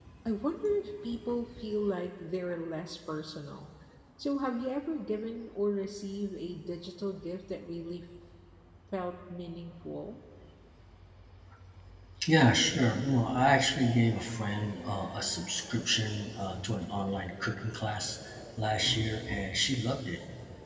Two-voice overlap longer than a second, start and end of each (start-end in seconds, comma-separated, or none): none